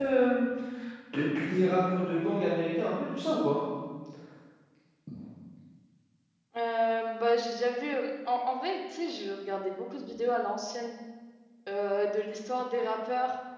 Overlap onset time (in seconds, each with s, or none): none